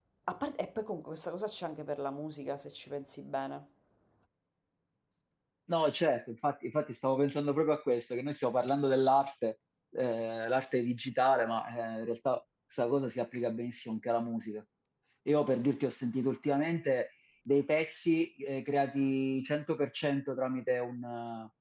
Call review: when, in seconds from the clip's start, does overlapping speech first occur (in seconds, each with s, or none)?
none